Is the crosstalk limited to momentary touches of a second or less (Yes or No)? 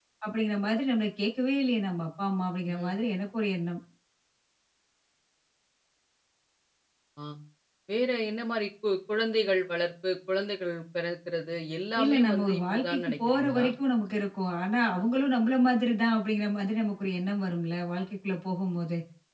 No